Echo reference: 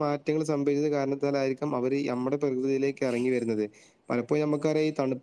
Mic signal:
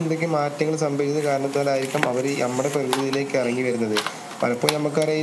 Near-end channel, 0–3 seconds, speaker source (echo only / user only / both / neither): echo only